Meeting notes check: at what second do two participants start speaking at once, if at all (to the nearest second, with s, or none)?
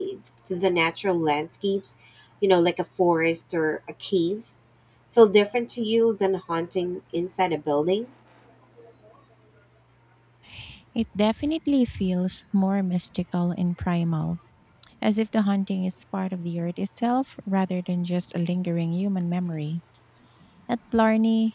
none